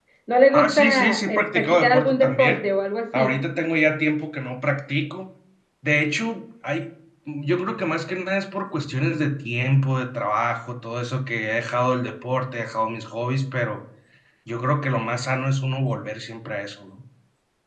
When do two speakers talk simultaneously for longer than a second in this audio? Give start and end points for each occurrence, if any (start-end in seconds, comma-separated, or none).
0.5-2.6